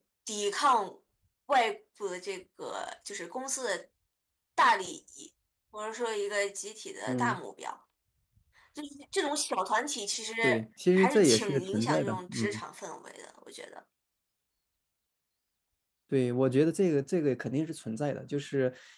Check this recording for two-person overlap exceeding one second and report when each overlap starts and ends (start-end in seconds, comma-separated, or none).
10.9-12.6